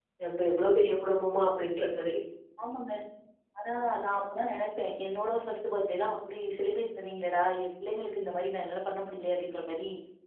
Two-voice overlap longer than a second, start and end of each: none

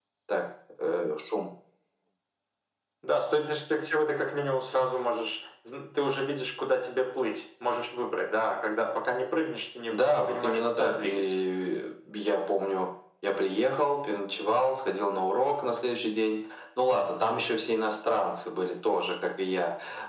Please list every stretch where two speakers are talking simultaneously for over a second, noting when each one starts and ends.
9.9-11.4

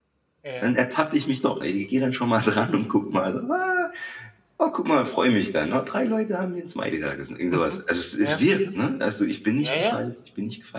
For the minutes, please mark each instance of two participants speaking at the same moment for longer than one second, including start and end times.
none

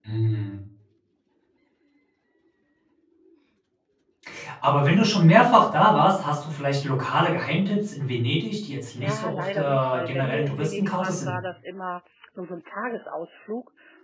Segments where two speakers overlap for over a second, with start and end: 9.0-11.3

